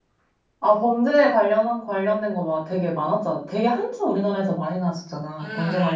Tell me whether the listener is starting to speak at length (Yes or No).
Yes